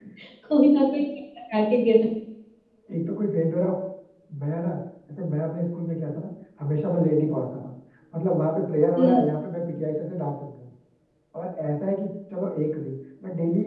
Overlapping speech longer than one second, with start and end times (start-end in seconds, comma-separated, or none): none